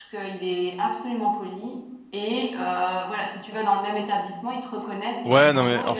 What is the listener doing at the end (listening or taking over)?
taking over